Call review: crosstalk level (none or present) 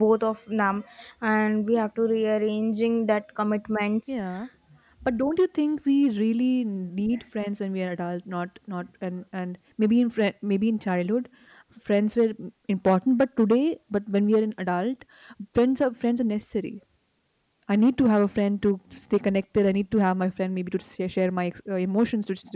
none